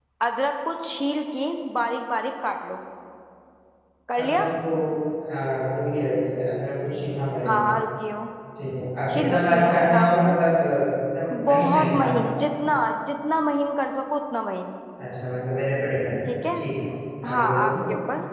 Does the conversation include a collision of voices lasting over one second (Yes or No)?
Yes